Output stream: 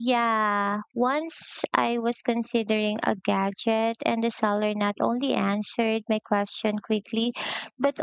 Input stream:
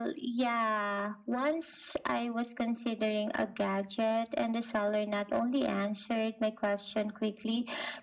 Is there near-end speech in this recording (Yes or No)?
No